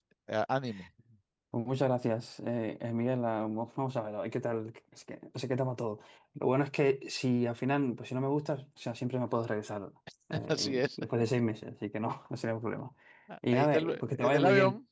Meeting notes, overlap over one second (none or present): present